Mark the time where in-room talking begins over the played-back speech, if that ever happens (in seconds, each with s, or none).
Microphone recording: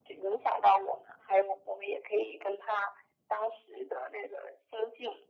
none